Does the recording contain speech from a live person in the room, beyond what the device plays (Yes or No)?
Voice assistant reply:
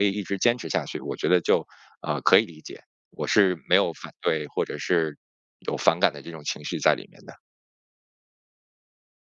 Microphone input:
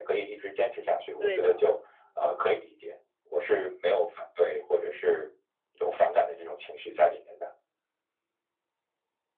Yes